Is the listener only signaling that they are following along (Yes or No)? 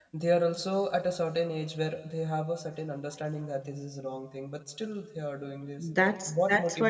No